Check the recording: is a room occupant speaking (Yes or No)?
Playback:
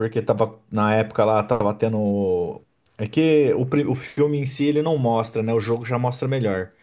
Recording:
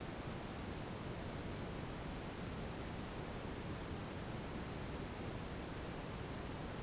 No